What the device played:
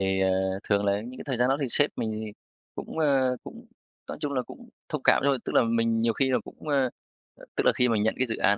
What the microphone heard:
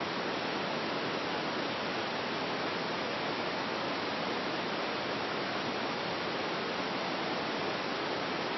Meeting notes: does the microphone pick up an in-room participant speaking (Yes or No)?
No